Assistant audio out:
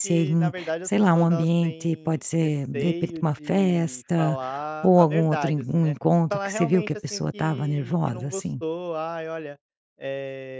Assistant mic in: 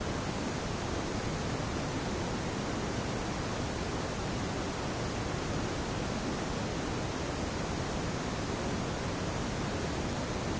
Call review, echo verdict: none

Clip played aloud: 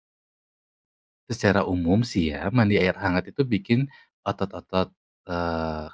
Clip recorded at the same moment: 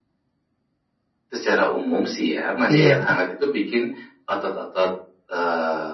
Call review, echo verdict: present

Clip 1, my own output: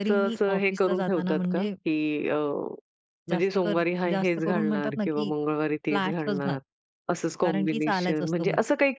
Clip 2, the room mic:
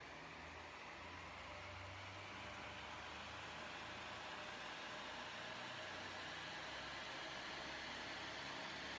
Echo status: none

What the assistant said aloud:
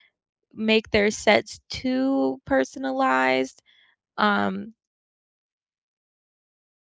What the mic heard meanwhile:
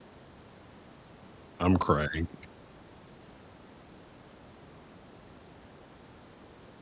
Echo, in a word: none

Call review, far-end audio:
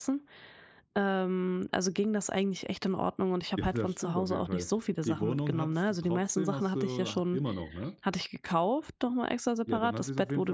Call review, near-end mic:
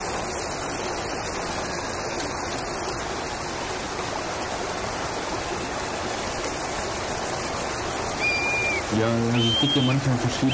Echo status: none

